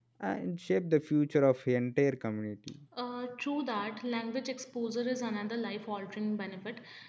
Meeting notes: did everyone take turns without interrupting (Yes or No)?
Yes